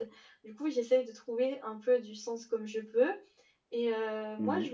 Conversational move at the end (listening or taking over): listening